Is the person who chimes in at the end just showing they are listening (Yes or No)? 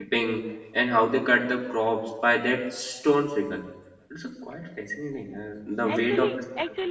No